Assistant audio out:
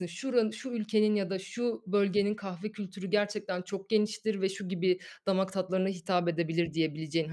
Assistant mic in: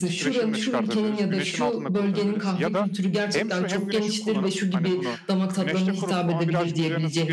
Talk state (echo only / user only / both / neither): both